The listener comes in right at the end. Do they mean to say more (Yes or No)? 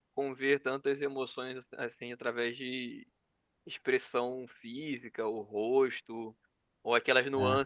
No